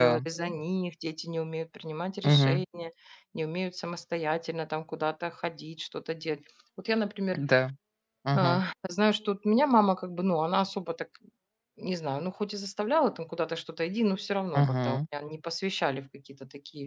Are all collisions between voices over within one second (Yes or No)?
Yes